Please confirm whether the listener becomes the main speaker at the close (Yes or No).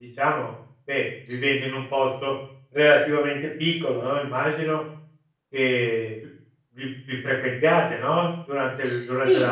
Yes